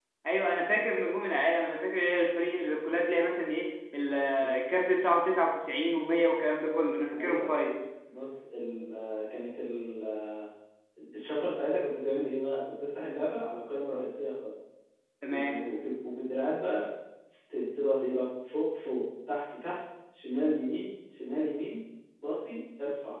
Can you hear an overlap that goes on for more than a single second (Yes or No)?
No